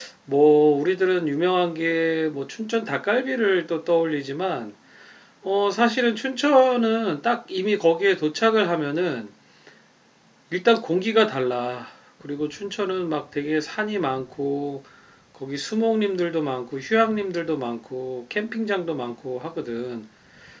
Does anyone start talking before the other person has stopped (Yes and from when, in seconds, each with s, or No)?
No